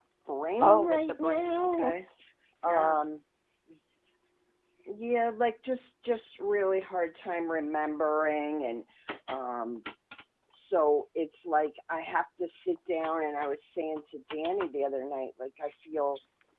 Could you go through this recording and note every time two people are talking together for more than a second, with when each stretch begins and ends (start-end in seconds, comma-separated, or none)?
0.6-1.9